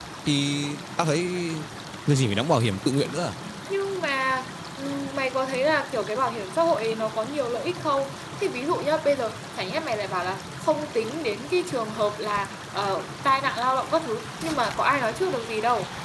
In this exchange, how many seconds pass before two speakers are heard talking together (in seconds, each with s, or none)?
none